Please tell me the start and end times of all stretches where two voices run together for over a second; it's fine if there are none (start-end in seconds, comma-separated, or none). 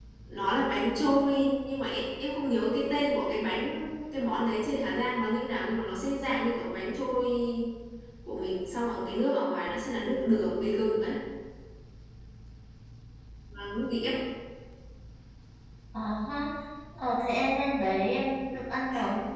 none